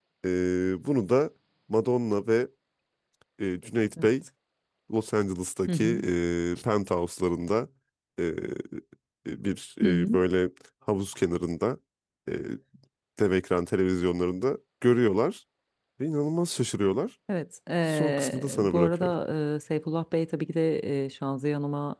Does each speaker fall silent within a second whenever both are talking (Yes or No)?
No